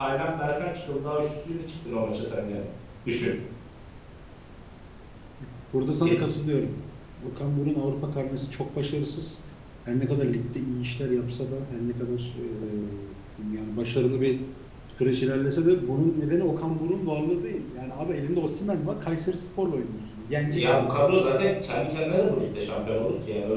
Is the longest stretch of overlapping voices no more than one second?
Yes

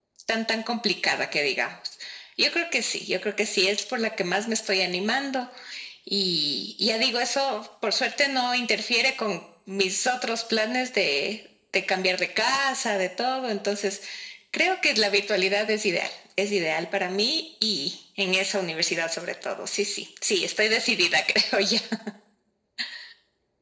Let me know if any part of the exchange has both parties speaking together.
No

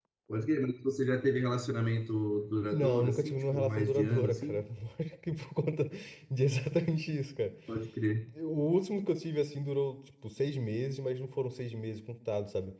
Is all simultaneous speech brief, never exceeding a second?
No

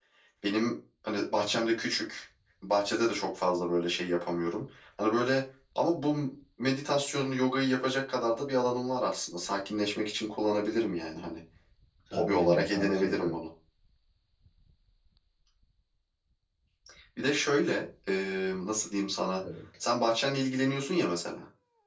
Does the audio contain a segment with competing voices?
Yes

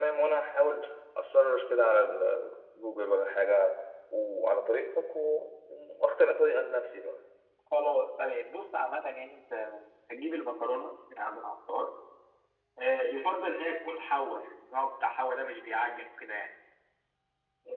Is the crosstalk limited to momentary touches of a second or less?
Yes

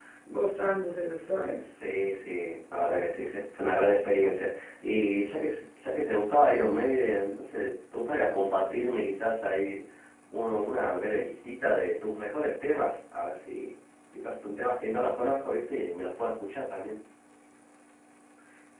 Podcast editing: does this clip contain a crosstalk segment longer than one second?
No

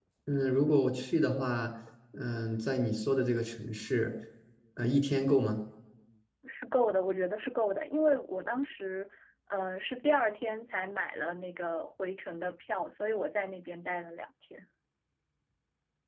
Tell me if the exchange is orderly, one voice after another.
Yes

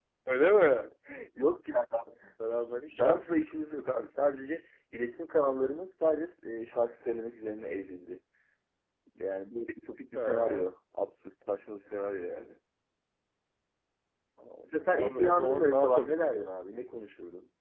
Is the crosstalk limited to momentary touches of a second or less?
No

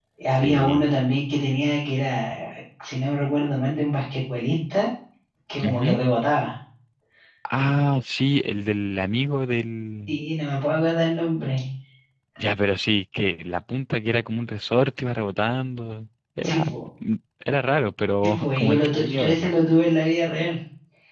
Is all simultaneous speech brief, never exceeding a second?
No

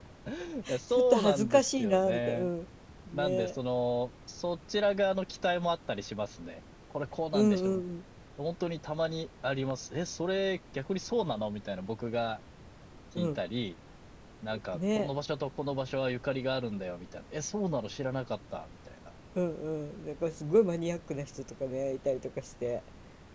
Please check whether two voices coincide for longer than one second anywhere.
Yes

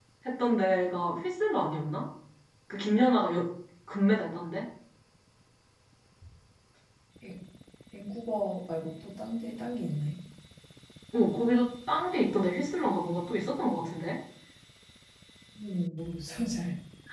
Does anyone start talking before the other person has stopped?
No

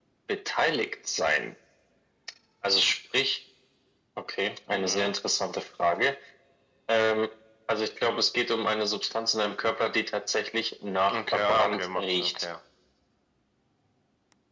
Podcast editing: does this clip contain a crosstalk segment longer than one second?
Yes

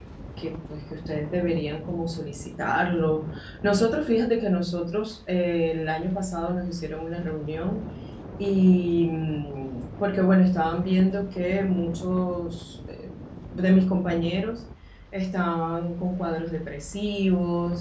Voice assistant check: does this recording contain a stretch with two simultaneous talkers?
No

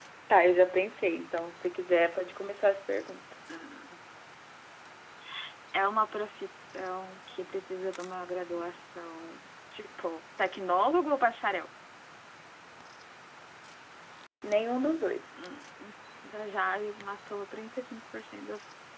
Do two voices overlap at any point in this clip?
No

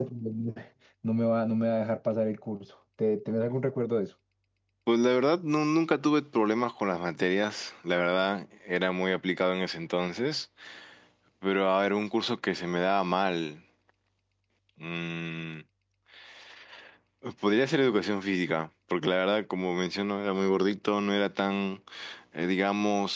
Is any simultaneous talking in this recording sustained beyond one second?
No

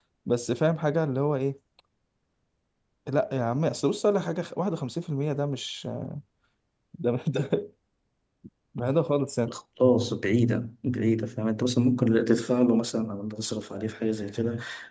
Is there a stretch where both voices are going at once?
No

